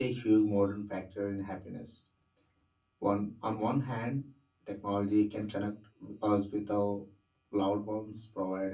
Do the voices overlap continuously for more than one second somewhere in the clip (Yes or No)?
No